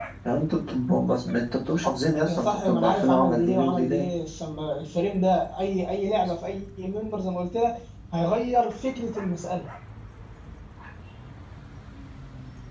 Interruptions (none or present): present